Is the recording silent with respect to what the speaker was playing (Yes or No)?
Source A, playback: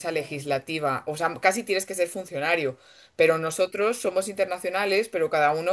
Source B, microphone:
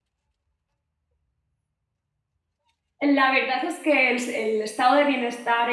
Yes